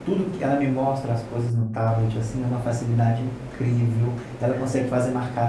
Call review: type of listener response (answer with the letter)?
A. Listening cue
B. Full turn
A